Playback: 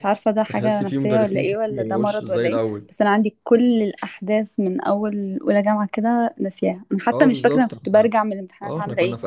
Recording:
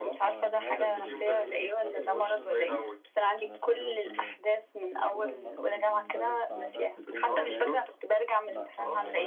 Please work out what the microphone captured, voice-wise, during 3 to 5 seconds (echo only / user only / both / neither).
both